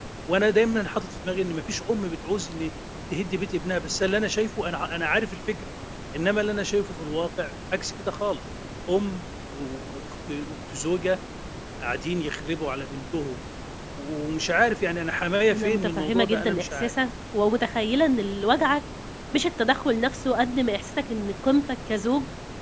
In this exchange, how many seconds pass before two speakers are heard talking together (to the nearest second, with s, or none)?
16 s